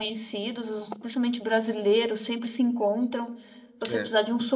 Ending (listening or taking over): listening